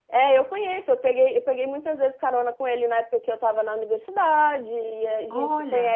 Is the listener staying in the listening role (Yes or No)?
Yes